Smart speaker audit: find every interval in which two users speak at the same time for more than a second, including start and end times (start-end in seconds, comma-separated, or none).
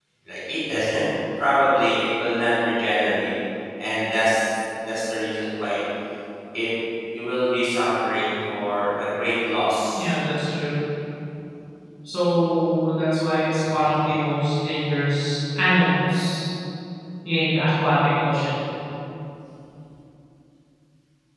none